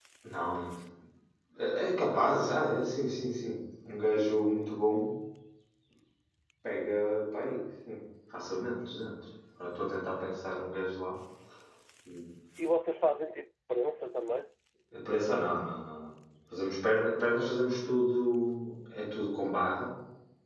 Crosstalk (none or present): none